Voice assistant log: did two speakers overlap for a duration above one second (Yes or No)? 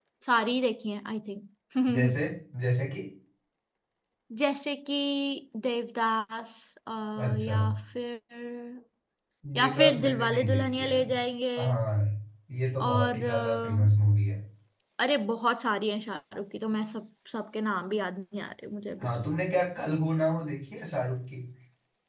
Yes